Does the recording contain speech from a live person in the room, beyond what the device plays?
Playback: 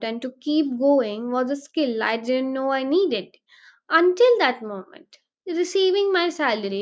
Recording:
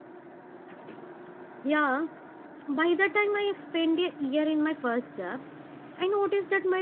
Yes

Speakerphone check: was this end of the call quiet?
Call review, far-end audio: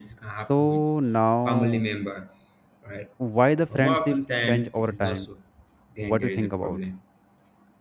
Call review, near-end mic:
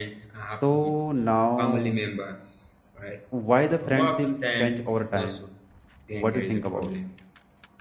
Yes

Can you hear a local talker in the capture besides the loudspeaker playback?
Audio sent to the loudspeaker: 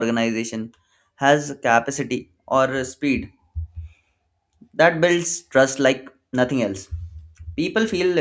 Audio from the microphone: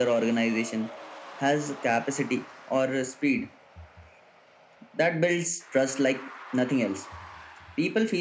No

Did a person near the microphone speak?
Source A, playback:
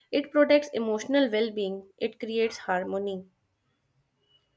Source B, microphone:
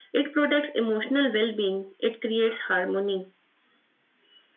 No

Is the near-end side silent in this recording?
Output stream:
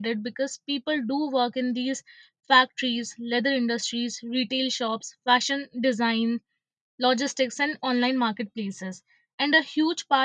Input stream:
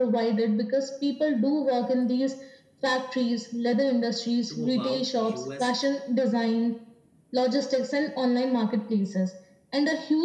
No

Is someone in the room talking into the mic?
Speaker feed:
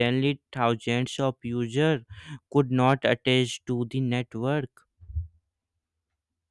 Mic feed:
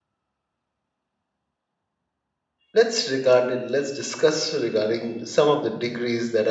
Yes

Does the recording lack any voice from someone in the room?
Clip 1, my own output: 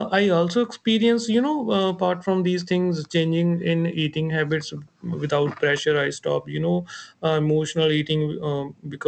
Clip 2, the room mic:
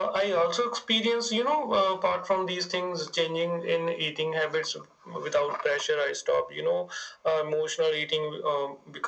Yes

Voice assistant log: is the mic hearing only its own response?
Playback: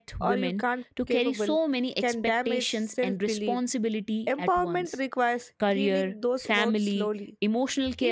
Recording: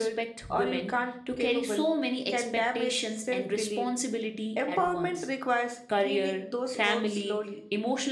Yes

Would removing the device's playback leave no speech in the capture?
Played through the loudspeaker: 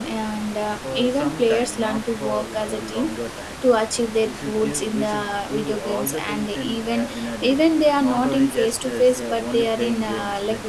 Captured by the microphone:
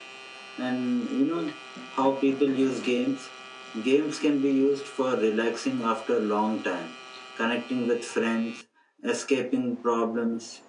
No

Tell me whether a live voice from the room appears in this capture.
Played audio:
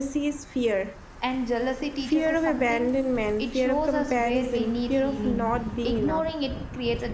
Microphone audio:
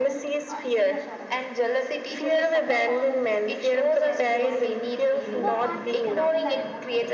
Yes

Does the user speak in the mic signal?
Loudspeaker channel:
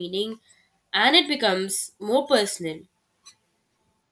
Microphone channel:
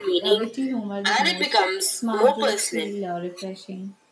Yes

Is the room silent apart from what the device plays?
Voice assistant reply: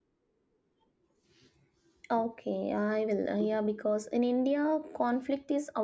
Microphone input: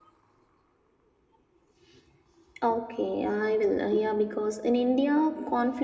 Yes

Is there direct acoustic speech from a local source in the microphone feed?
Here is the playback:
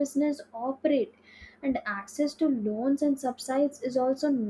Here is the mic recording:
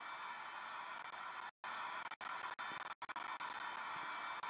No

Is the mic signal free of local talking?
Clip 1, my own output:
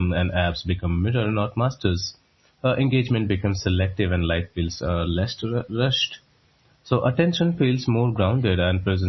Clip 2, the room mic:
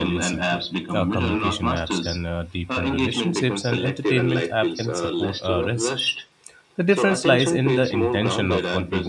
No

